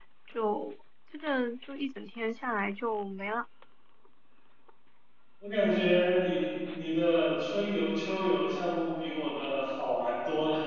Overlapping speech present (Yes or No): No